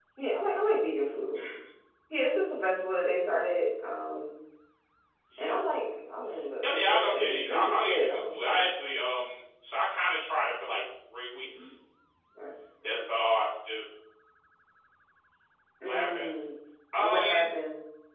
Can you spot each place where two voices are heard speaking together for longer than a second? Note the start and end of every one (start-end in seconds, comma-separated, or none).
6.6-8.7